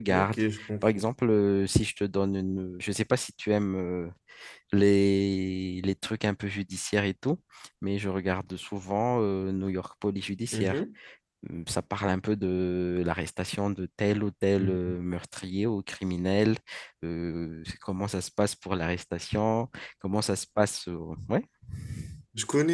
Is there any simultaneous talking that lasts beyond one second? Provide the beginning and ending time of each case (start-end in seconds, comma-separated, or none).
none